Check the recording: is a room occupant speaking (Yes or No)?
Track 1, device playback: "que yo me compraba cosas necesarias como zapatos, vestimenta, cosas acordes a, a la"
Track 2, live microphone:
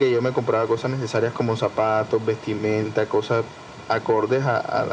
No